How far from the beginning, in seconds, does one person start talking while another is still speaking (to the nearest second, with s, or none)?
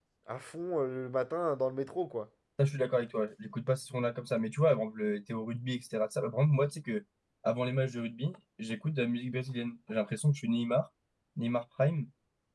none